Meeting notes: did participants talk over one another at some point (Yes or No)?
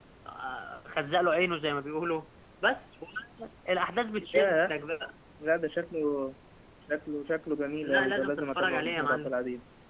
Yes